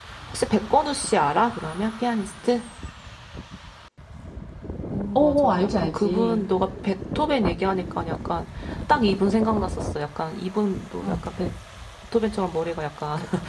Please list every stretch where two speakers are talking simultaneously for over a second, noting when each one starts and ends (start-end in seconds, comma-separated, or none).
5.2-6.5